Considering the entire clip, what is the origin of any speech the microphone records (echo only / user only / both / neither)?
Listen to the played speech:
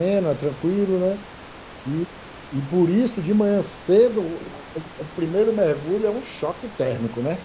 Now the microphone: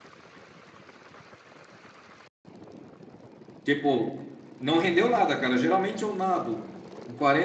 user only